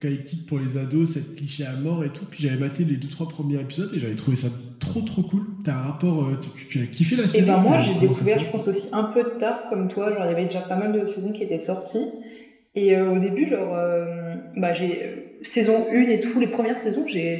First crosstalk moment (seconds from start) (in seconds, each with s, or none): 7.3 s